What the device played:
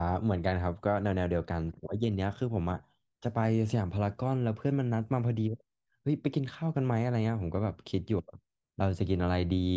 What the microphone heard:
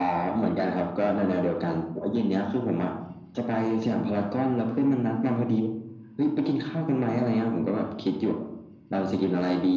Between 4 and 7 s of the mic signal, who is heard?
echo only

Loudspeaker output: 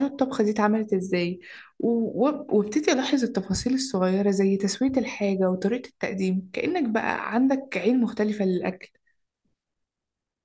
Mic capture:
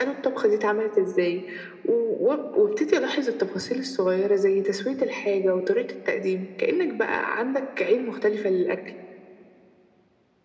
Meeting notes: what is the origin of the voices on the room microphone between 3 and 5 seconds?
echo only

